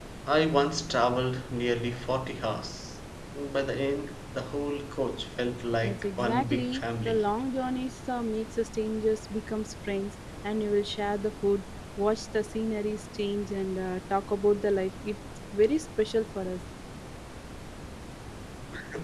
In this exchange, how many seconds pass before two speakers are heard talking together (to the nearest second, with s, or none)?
6 s